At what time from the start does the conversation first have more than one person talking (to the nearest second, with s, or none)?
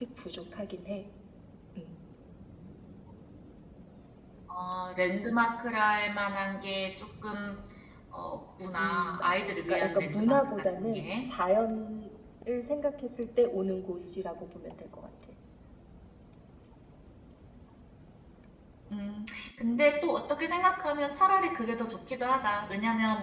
9 s